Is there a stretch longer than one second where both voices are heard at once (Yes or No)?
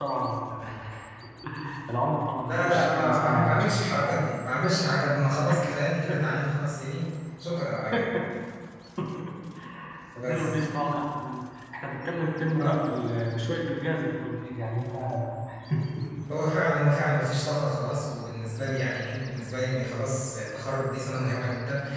Yes